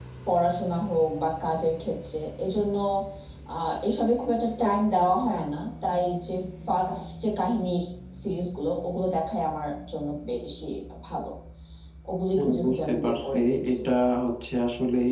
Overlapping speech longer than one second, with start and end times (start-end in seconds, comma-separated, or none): 12.4-13.8